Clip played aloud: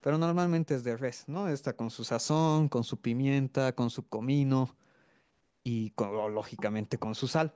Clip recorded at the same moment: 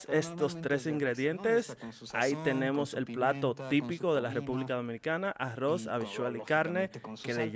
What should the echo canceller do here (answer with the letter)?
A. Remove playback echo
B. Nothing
A